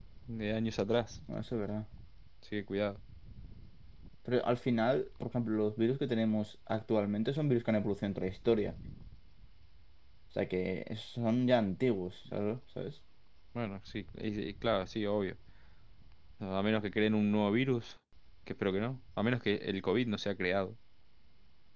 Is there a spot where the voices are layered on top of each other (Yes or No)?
No